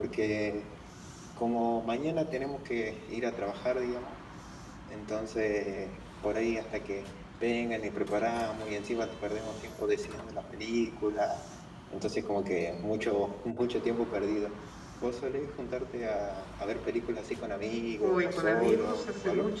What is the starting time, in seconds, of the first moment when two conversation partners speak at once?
18.0 s

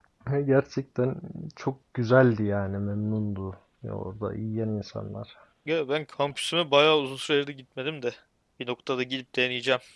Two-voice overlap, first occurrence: none

